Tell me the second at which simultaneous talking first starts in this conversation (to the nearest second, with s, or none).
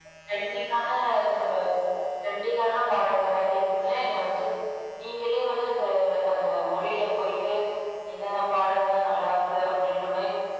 none